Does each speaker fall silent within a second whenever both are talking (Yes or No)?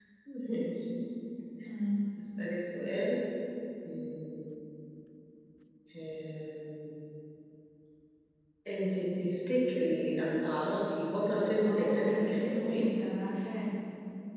No